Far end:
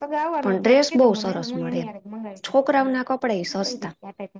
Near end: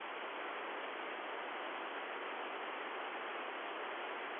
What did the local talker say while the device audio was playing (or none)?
none